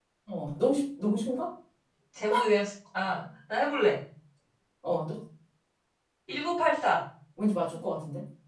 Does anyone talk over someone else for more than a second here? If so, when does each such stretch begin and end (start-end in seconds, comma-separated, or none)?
none